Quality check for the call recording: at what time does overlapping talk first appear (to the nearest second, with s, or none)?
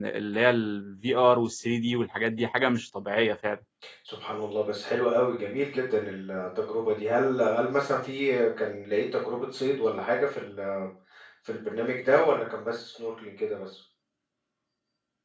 none